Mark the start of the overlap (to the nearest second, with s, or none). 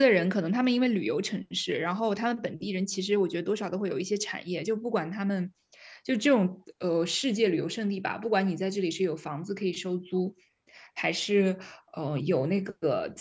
none